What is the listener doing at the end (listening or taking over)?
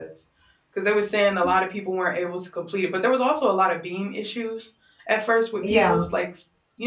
listening